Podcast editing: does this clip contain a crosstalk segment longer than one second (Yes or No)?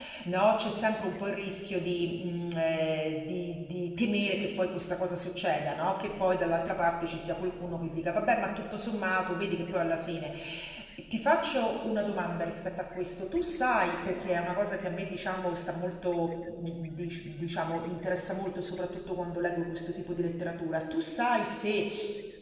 No